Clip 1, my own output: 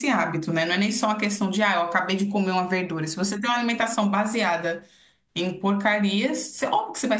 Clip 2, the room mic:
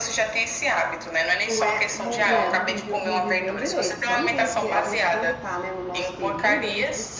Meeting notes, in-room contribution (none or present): present